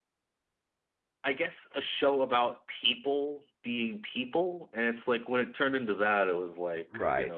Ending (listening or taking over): taking over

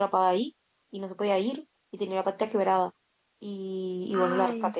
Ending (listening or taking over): listening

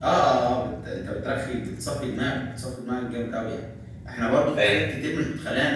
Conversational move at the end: listening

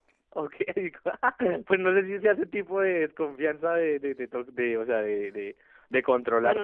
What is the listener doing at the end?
taking over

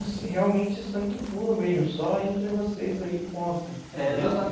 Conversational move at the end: taking over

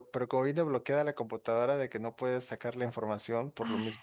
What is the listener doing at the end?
listening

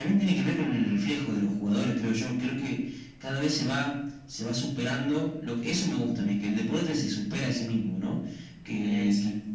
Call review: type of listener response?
listening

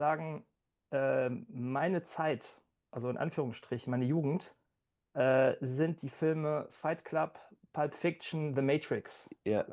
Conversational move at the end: taking over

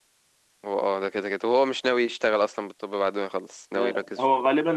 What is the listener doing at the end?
taking over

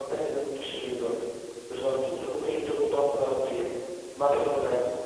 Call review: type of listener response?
listening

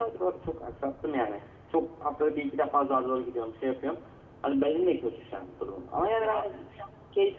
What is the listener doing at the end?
listening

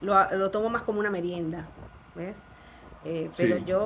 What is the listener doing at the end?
listening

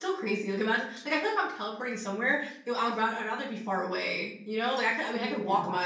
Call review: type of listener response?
listening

